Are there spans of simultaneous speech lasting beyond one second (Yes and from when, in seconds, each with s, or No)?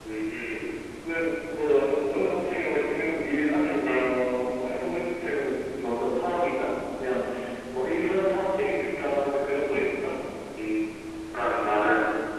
No